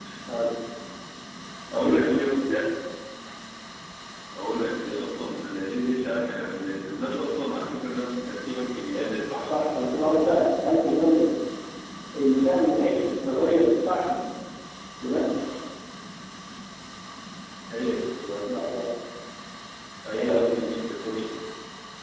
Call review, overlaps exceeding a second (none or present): none